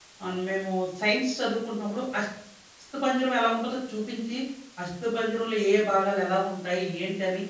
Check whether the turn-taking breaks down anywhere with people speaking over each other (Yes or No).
No